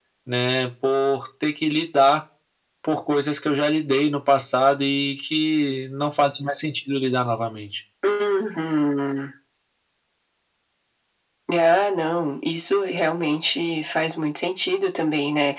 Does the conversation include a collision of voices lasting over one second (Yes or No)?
No